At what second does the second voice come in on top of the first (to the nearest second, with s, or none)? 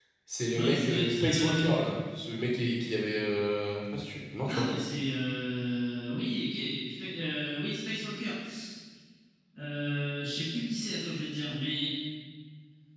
1 s